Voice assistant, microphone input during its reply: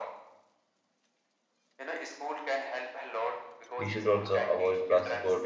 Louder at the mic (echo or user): user